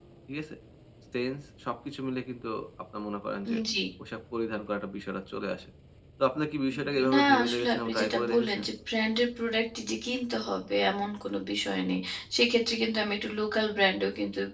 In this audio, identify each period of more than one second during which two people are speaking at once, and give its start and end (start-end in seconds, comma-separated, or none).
7.1-8.6